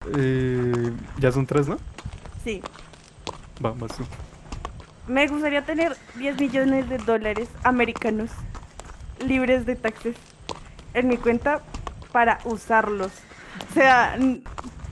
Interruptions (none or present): none